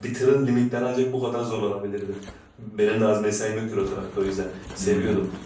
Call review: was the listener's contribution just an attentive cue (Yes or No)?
Yes